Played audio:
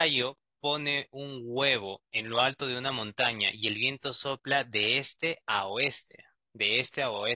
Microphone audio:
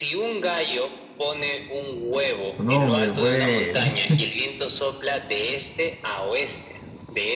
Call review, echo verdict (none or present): present